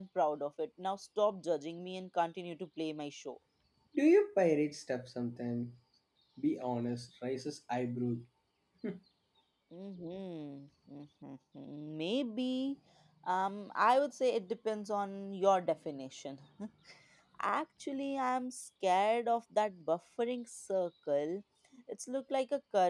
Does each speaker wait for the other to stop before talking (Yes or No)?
Yes